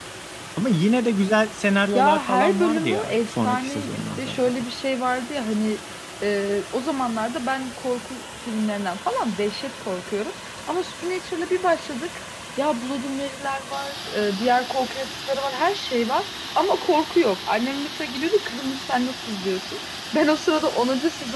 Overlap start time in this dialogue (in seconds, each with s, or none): 1.9 s